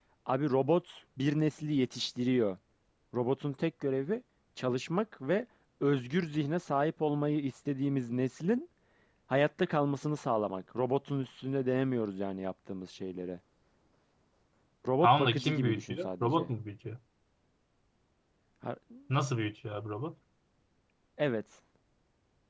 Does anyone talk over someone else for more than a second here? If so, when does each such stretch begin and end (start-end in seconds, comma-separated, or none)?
15.0-16.5